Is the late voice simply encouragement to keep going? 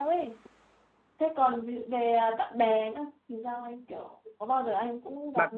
No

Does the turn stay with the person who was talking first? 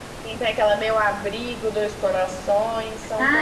No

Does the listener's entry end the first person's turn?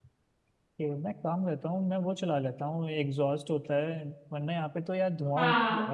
Yes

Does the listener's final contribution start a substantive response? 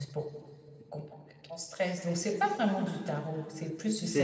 Yes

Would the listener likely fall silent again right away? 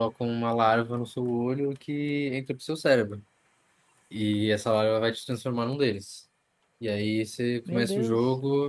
Yes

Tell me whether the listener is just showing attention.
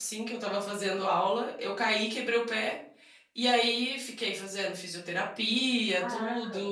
Yes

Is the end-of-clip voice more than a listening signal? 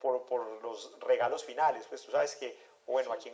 No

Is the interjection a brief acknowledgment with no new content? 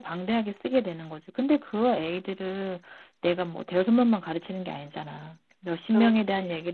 Yes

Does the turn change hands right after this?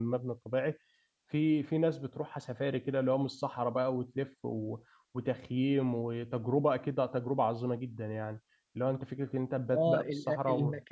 Yes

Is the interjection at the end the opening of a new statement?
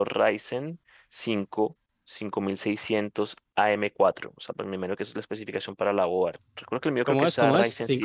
Yes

